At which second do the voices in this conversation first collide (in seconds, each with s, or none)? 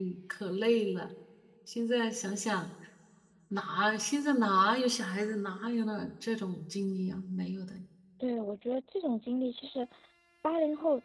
none